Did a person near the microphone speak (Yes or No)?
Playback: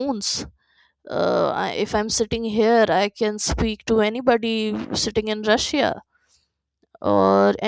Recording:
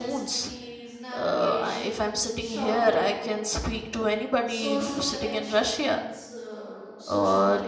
Yes